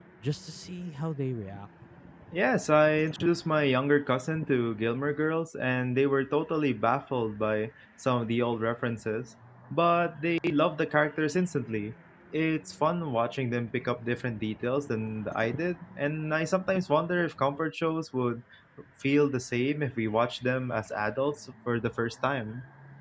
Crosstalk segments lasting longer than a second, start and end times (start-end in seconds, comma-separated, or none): none